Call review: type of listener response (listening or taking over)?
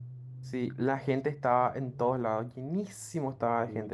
listening